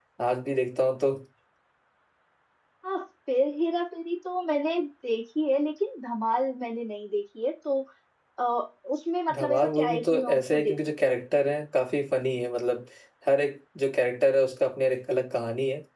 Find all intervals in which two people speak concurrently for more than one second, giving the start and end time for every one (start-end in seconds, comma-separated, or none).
9.3-10.8